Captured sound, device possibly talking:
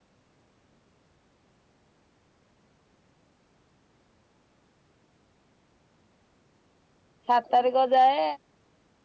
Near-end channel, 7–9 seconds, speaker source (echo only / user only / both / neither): user only